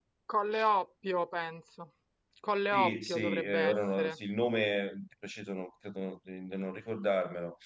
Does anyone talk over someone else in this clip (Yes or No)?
Yes